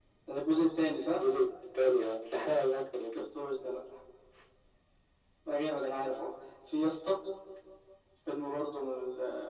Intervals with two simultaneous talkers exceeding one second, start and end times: none

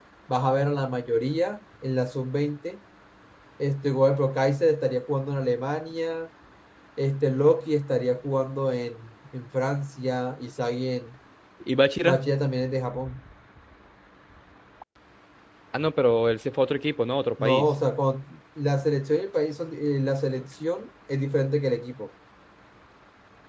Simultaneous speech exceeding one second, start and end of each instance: none

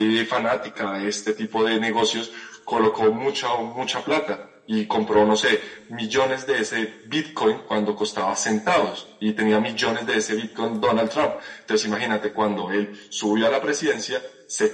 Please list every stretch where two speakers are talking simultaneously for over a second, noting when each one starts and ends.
none

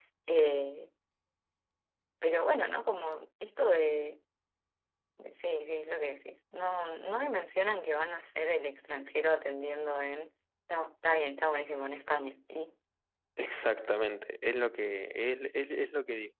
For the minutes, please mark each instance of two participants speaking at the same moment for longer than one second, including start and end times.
none

